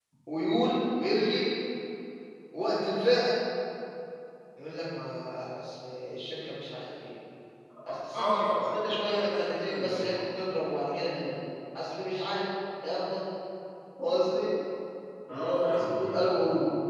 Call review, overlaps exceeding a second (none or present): present